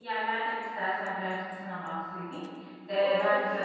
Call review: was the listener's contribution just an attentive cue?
Yes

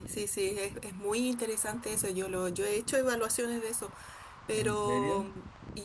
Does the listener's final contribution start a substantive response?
No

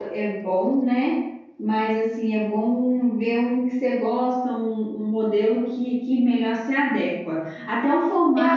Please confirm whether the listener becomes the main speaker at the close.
Yes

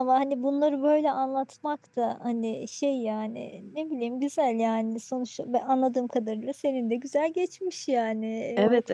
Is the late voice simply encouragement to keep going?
No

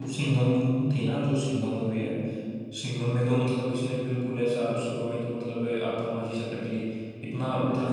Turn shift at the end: No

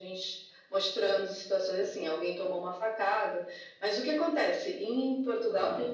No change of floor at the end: Yes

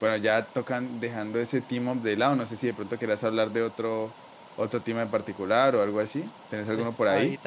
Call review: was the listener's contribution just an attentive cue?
No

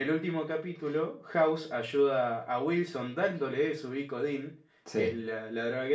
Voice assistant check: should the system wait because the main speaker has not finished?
Yes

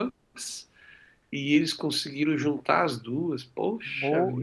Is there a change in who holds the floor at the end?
Yes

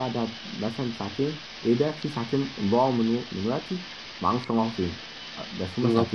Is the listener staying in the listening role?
Yes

